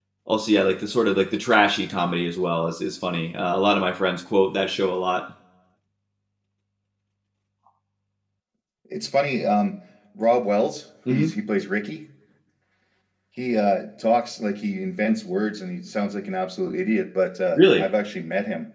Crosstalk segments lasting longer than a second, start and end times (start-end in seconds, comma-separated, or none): none